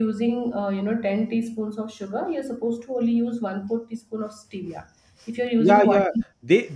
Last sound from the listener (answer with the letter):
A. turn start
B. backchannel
A